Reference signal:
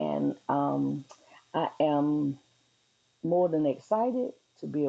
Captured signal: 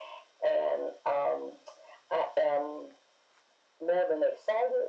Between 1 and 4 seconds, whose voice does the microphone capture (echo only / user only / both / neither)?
echo only